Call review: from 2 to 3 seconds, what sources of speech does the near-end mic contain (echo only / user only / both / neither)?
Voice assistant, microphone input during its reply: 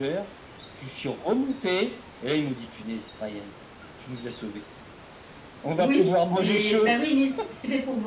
echo only